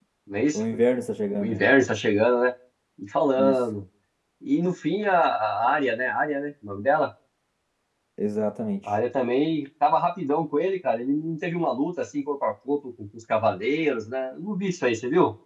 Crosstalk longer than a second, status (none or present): none